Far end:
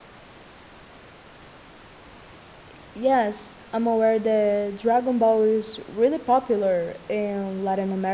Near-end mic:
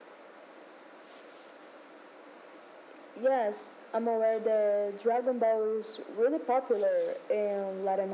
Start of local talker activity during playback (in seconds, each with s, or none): none